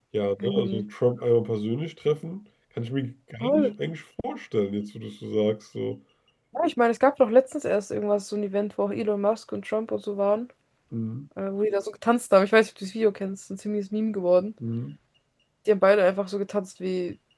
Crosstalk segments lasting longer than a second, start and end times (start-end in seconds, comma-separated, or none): none